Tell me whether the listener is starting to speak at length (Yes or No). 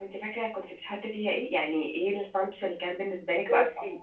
Yes